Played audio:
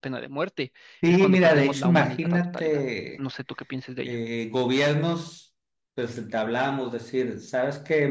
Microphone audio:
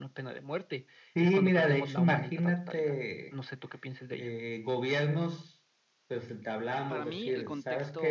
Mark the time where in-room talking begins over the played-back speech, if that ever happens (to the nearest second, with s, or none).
7 s